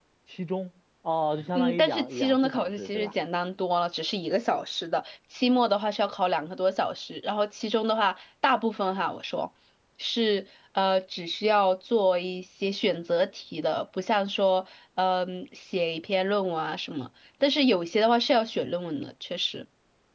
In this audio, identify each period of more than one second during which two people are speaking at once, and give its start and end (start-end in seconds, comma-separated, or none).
1.6-3.1